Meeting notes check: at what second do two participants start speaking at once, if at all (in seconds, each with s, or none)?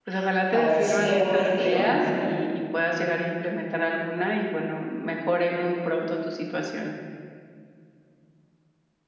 0.5 s